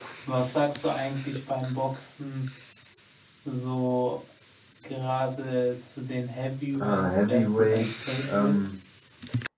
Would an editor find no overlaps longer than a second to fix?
No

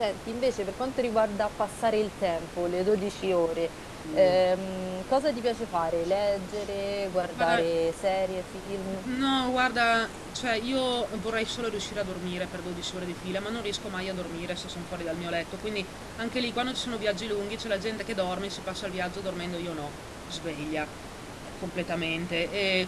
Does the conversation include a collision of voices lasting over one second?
No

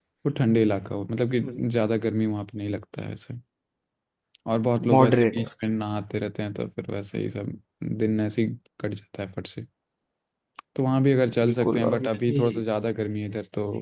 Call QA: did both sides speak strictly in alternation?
No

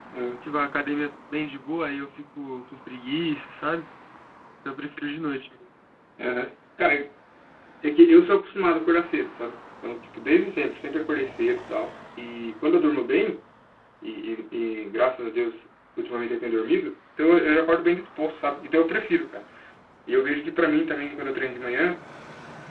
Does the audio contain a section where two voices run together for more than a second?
No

